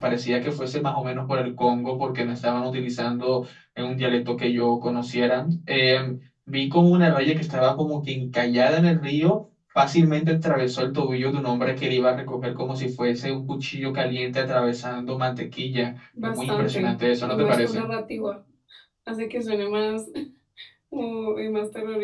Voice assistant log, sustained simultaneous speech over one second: present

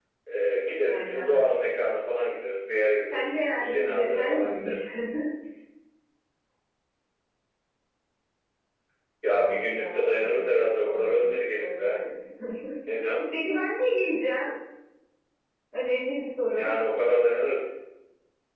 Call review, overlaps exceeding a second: present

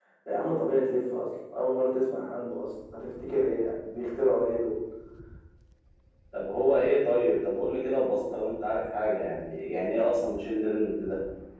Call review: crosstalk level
none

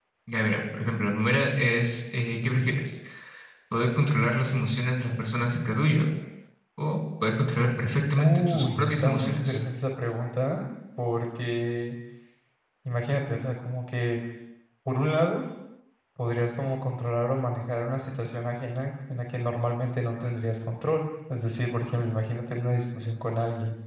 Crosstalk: present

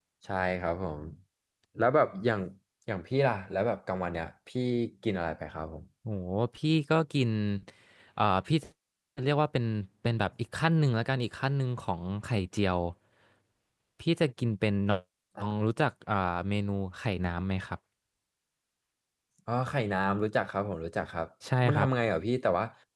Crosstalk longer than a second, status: none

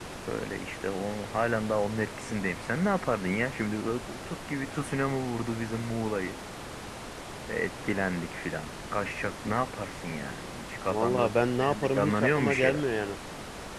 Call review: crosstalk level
present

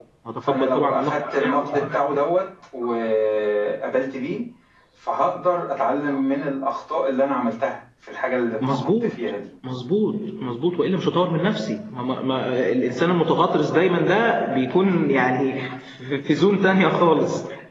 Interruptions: present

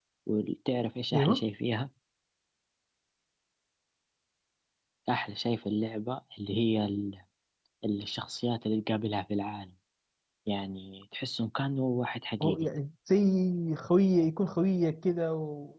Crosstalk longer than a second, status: none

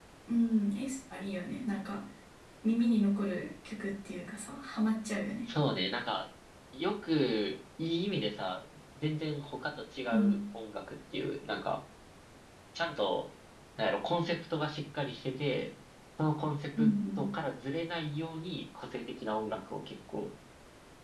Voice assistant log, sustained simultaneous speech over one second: none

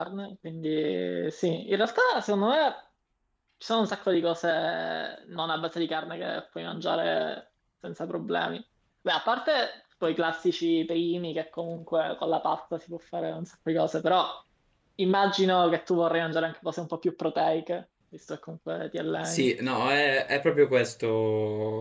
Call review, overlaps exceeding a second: none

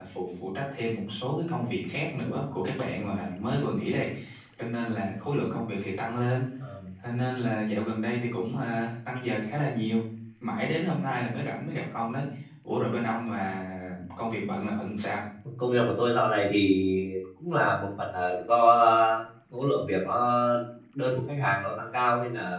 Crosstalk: none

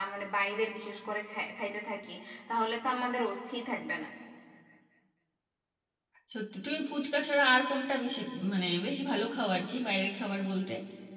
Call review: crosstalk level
none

